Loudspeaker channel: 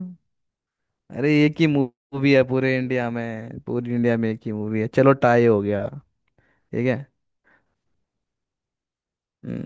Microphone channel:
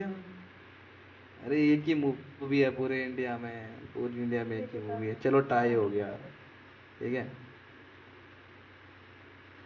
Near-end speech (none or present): present